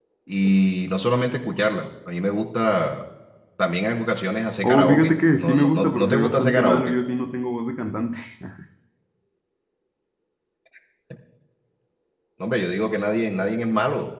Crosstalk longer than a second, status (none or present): present